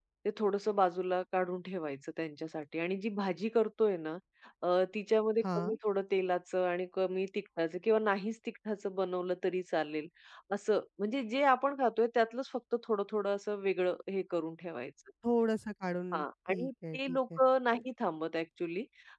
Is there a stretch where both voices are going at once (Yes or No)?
Yes